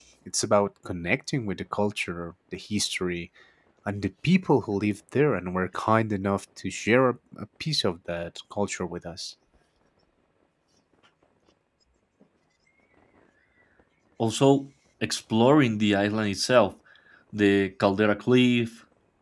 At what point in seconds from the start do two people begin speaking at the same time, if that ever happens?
none

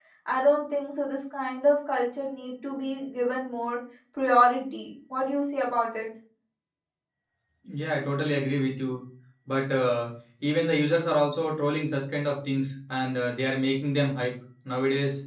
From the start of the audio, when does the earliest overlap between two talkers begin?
none

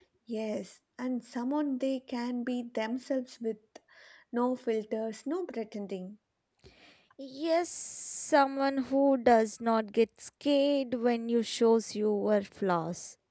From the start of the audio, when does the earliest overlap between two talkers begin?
none

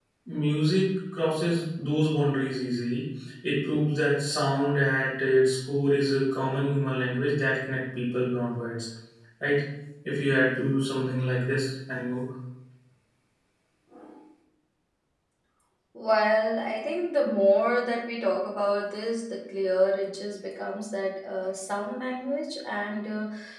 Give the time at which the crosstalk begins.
none

